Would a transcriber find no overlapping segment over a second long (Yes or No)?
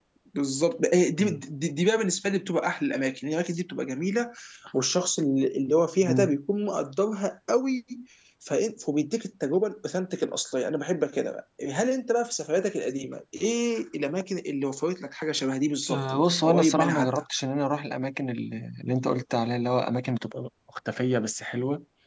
No